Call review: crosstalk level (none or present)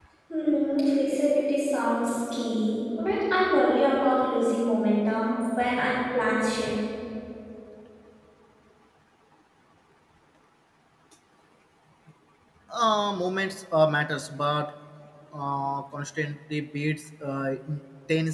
none